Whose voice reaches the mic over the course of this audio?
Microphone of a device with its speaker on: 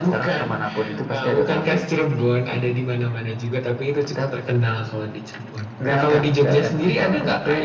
echo only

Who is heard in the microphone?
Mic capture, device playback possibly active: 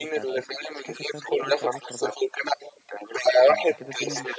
both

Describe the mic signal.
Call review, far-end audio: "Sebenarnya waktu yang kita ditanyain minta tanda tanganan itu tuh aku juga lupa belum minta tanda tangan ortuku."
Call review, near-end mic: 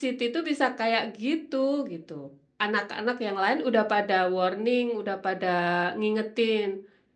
user only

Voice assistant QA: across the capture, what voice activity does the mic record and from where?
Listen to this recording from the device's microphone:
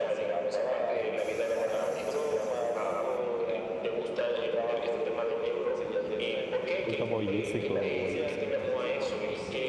both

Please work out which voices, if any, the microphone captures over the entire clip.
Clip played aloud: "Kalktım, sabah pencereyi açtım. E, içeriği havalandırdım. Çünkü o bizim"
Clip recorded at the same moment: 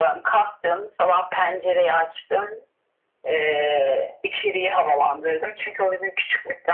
echo only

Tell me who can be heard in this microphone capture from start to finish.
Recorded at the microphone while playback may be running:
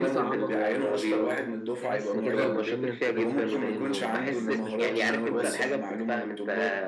both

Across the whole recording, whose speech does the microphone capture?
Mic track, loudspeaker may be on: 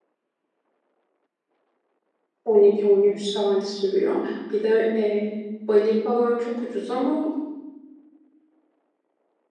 user only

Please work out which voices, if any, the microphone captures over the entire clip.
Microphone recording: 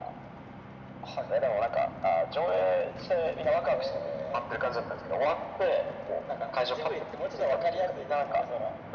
echo only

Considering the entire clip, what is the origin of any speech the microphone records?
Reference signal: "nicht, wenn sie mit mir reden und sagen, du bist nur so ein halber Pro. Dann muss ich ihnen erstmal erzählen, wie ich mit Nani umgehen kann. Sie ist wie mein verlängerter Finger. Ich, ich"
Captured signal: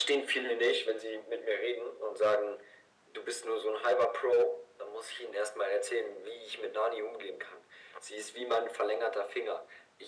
echo only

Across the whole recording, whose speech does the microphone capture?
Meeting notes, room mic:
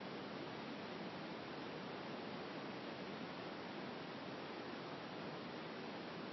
neither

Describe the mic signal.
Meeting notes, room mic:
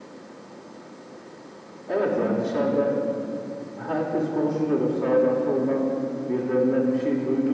echo only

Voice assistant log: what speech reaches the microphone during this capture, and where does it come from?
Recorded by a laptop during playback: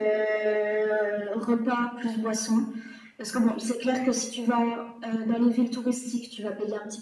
echo only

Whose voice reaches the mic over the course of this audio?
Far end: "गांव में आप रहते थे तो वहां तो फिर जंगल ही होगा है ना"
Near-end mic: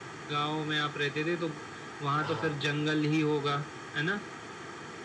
both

